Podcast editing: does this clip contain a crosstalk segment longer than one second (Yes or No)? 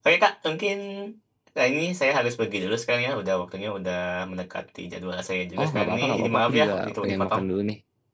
Yes